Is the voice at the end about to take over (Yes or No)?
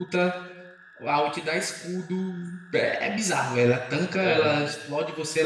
No